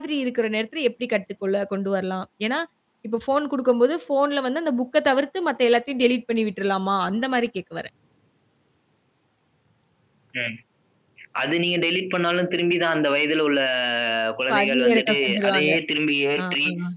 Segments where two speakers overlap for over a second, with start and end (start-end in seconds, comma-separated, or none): 14.5-15.7